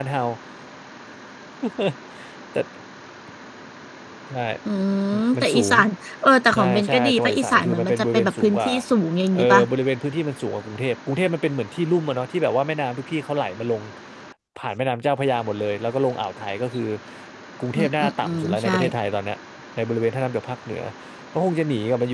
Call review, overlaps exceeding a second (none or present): present